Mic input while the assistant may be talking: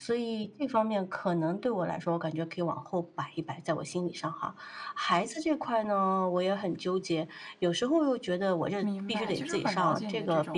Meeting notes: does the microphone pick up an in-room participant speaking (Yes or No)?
Yes